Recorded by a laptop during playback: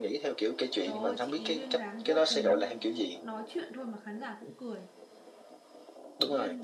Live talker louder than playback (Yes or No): No